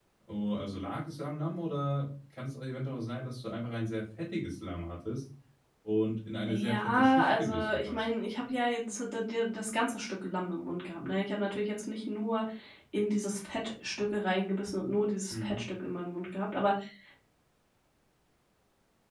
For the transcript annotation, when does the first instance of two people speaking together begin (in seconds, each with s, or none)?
6.5 s